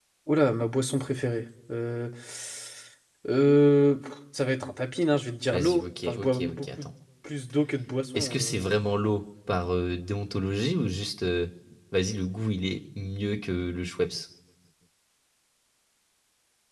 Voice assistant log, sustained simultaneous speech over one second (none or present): present